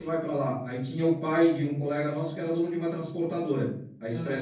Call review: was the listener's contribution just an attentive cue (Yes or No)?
Yes